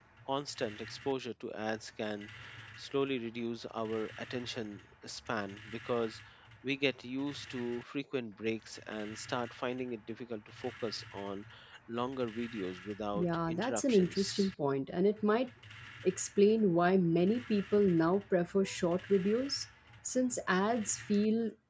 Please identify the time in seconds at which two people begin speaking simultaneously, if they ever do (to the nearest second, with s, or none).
13 s